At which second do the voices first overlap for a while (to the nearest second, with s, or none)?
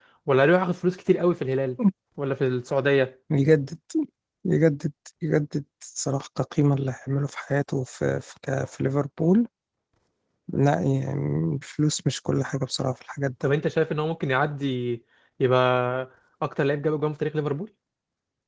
none